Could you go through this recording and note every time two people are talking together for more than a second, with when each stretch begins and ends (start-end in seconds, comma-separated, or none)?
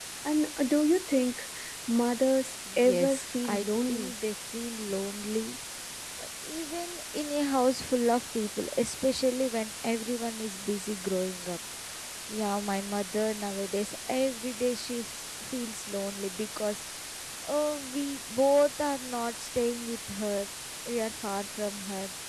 2.7-4.1